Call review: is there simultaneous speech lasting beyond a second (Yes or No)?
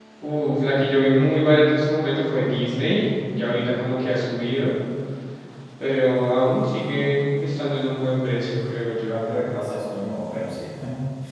No